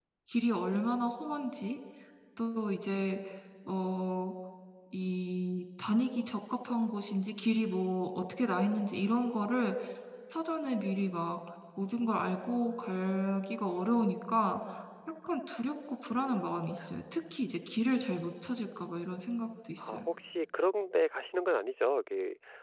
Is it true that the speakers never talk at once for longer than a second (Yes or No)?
Yes